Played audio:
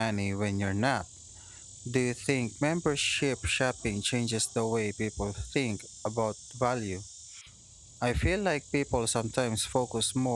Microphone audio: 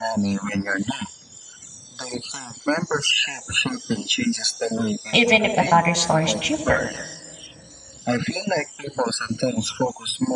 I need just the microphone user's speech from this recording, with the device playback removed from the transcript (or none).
even if another store is cheaper.